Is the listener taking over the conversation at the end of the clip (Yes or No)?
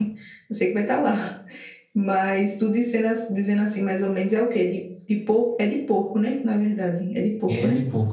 Yes